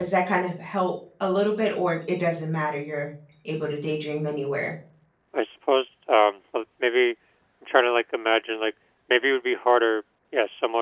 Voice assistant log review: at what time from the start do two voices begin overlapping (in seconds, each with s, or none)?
none